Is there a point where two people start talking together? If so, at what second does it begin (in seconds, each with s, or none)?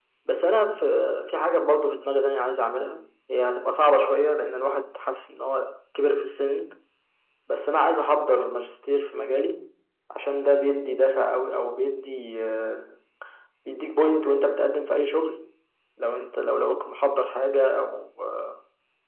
none